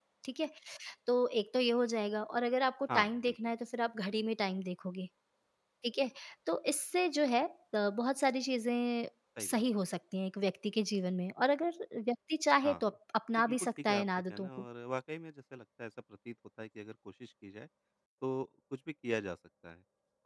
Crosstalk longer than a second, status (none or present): present